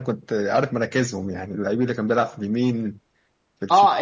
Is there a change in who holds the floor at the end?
Yes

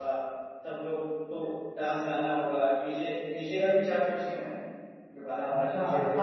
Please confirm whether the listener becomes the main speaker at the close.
Yes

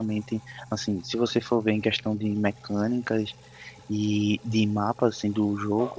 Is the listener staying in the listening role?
Yes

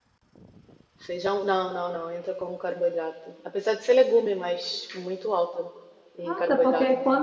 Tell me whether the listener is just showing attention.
No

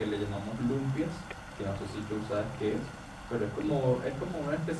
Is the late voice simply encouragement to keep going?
Yes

